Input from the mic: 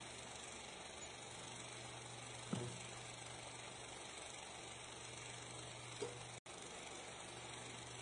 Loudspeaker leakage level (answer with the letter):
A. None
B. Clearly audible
A